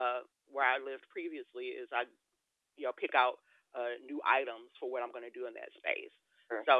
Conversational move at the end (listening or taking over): listening